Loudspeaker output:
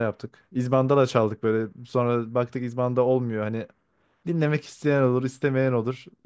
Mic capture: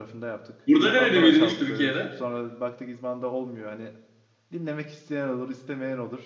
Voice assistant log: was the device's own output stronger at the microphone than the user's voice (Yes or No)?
No